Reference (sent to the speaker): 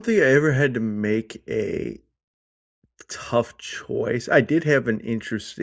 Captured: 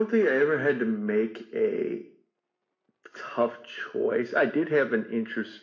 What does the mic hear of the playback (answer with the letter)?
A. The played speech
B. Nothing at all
A